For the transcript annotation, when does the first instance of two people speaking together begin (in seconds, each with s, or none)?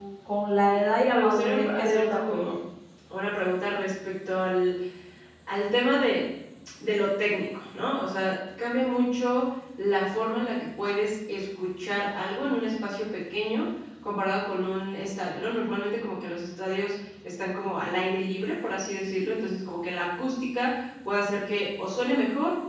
0.7 s